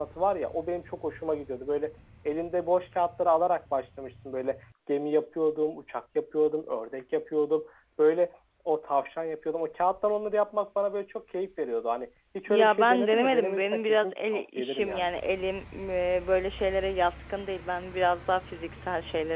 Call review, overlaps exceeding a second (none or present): present